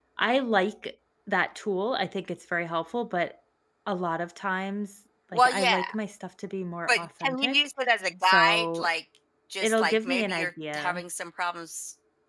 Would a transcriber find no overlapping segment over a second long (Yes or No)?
No